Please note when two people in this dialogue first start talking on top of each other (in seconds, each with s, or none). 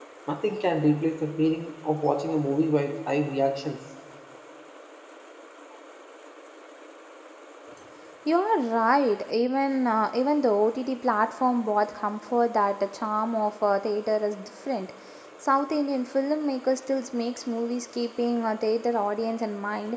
none